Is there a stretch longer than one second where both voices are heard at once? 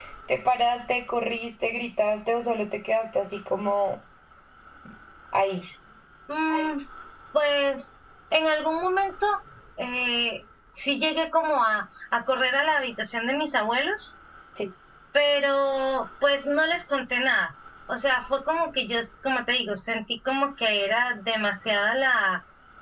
No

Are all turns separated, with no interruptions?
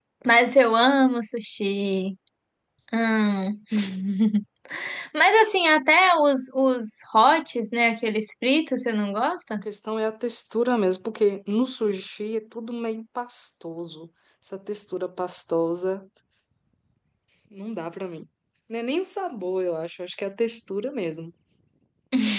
Yes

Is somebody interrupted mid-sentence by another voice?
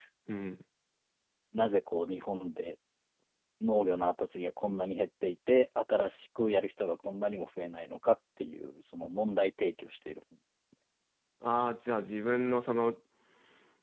No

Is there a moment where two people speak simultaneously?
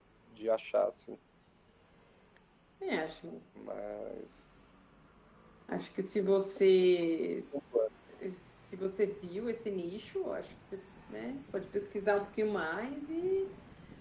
No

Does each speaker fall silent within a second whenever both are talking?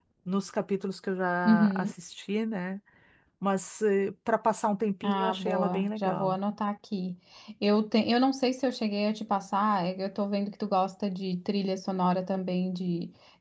No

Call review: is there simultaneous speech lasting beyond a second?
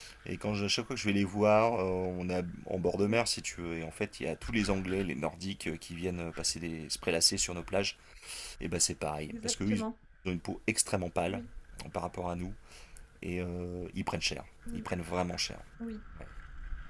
No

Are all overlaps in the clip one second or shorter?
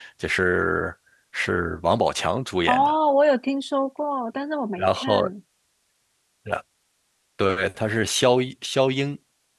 Yes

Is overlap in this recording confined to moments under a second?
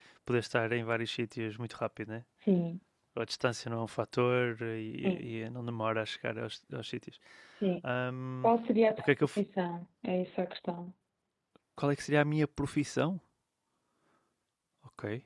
Yes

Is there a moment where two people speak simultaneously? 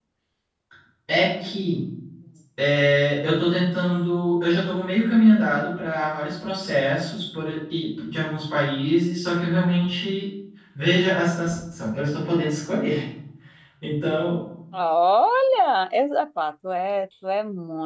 No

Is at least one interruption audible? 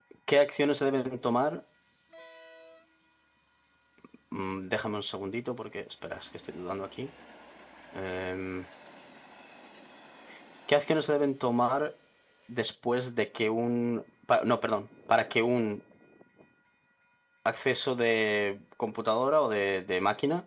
No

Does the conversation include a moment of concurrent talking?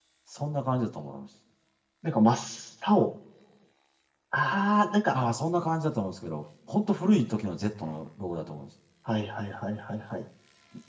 No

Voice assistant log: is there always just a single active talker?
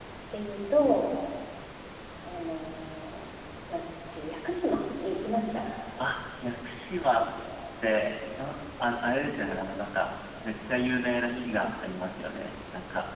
Yes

